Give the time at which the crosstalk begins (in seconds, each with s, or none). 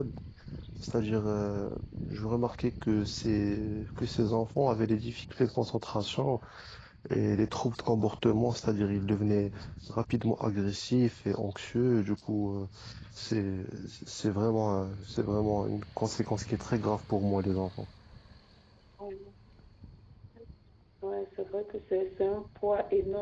none